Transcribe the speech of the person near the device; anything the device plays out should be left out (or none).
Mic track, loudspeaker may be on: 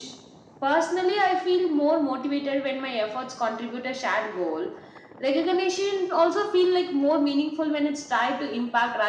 none